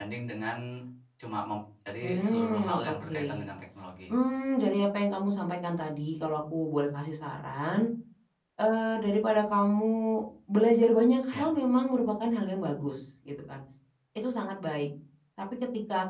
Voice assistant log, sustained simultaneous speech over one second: present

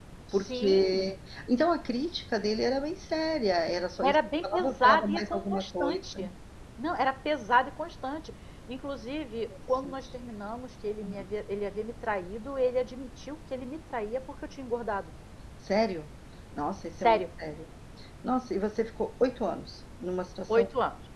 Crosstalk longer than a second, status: present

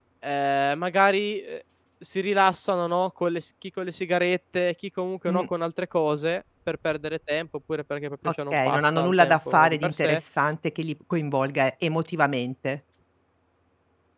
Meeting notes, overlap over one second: present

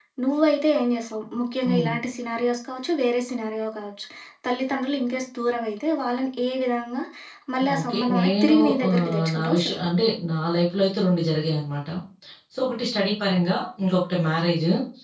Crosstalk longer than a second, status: present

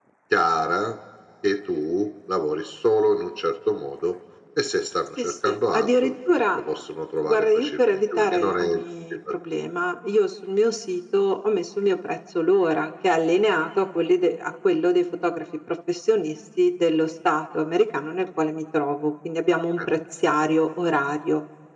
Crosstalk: present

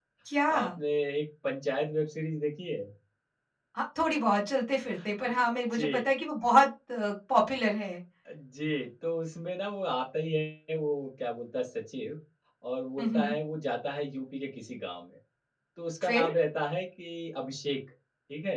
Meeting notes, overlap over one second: none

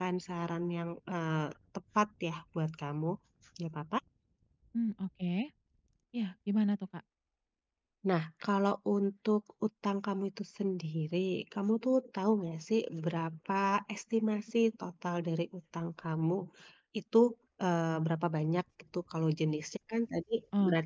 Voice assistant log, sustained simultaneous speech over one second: none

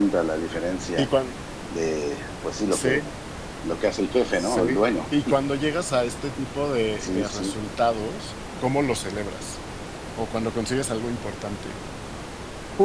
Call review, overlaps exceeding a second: none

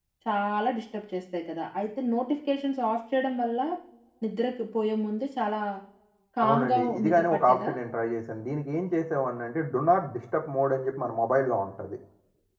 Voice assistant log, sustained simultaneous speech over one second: present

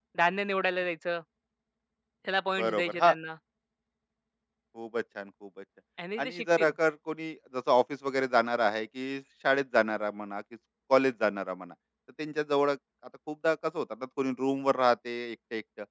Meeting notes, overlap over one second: none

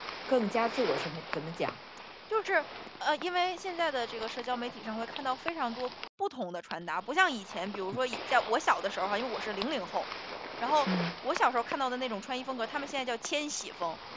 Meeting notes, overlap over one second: none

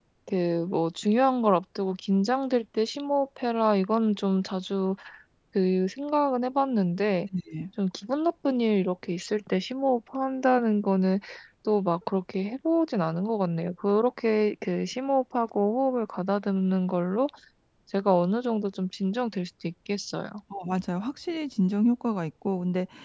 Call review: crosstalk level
none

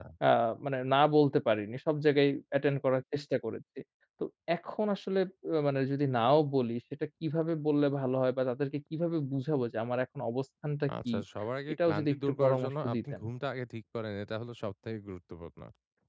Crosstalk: present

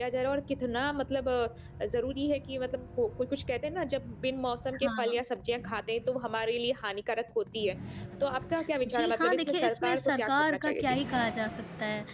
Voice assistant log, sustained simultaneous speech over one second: present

